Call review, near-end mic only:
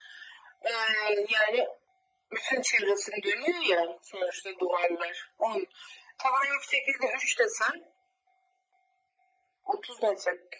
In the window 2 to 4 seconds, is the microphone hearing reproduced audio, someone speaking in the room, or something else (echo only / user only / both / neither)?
echo only